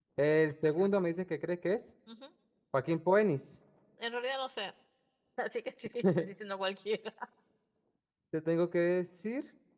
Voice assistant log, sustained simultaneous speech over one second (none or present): none